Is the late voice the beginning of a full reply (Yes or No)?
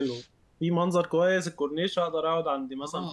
Yes